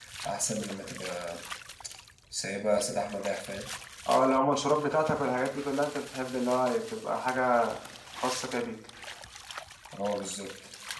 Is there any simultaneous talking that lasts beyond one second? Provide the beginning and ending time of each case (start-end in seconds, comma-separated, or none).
none